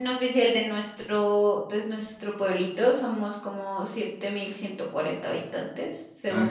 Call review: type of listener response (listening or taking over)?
listening